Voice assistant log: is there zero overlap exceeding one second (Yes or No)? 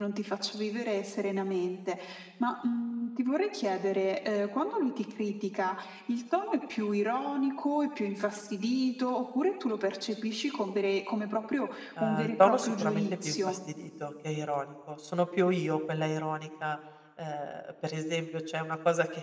No